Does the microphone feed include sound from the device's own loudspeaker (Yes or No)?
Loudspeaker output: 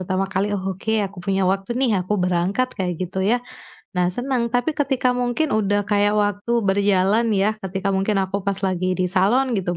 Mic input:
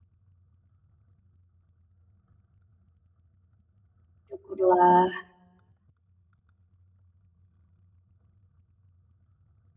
No